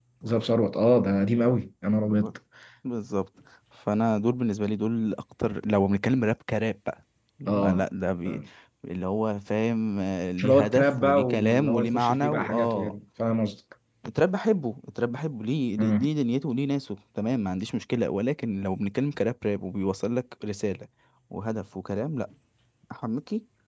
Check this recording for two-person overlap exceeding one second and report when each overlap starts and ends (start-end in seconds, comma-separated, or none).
10.4-12.9